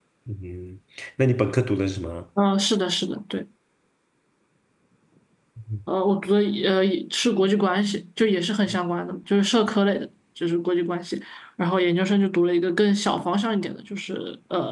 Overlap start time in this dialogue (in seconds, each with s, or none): none